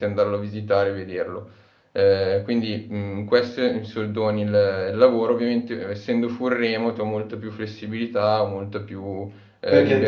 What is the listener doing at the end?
taking over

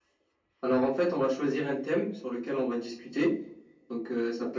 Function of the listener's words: listening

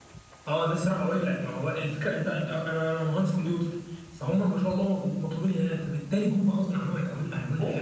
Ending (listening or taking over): taking over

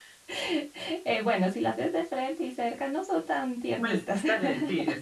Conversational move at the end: taking over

